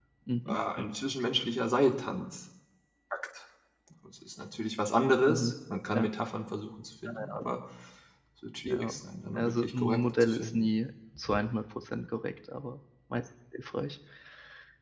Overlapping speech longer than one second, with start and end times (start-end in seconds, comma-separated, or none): 9.3-10.7